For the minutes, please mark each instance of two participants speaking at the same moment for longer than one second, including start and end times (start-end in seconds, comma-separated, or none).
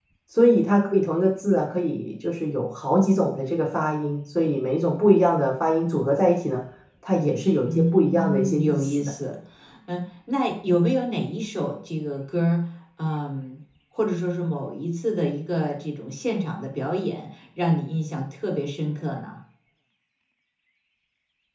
7.7-9.1